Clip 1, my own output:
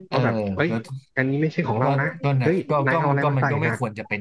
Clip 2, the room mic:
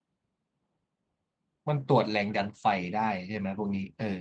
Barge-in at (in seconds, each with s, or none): 1.7 s